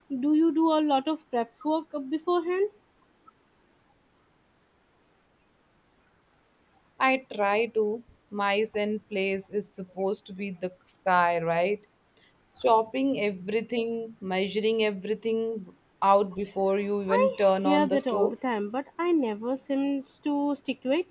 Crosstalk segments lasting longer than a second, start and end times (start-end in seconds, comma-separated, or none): 17.1-18.3